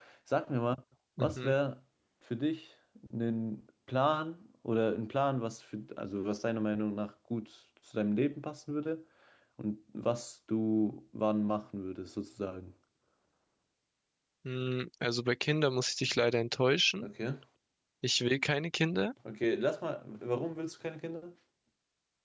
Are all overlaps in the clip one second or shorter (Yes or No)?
Yes